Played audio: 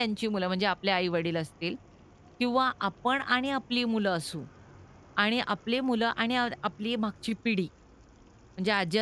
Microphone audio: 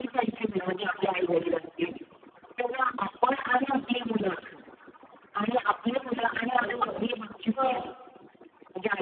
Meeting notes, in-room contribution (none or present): present